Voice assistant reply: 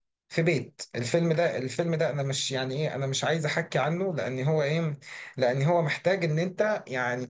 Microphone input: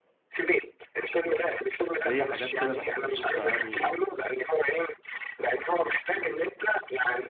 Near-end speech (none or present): present